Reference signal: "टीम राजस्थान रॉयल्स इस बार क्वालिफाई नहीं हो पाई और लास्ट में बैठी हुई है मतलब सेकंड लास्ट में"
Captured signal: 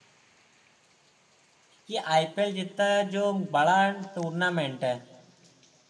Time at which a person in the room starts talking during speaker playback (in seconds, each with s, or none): 1.8 s